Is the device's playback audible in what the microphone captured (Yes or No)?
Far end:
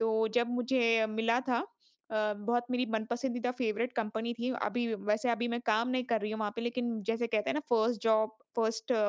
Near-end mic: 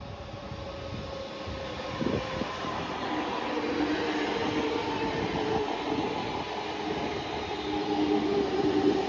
No